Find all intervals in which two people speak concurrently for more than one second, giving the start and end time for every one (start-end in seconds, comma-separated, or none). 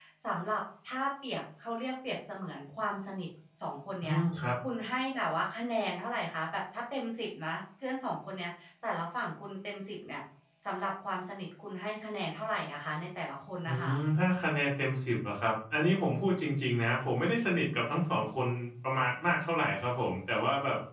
none